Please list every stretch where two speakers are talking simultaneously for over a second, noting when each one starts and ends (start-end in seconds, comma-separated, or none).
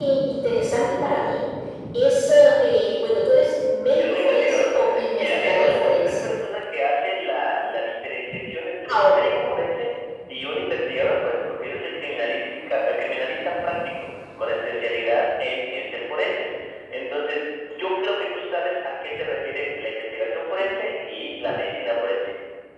4.0-6.3